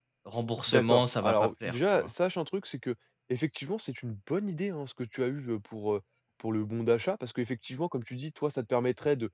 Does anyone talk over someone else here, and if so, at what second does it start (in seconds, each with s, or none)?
0.7 s